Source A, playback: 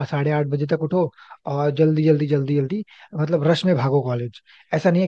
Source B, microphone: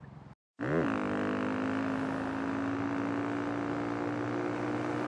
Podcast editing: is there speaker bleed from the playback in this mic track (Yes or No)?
No